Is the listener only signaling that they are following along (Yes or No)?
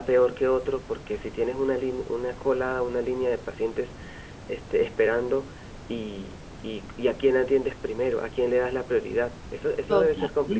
No